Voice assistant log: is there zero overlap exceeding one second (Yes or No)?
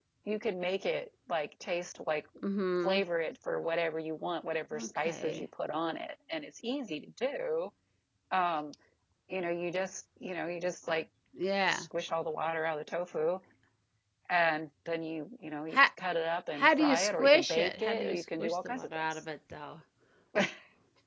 No